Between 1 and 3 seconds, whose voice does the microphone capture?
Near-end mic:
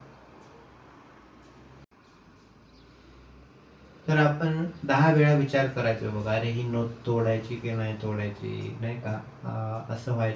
neither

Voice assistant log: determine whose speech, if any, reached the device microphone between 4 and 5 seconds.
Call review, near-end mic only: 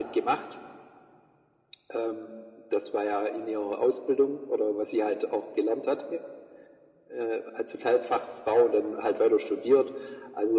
echo only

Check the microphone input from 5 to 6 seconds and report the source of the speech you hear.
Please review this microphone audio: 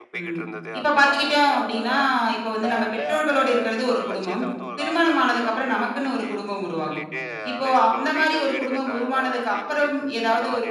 both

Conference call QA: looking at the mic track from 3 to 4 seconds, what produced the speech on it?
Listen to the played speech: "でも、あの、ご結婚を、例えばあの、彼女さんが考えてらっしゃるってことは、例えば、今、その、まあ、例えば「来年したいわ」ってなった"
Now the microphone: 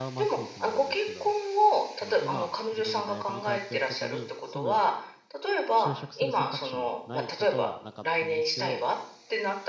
both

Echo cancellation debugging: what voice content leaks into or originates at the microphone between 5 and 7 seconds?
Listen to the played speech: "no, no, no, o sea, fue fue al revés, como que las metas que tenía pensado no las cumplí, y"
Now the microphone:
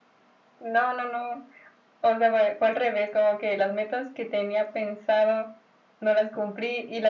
echo only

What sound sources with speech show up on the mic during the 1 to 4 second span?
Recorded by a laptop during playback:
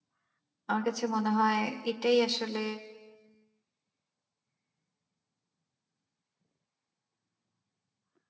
user only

